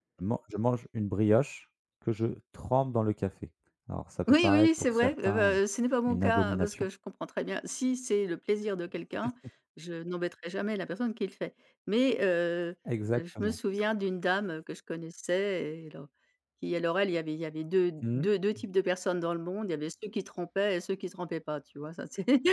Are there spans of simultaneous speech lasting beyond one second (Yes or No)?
Yes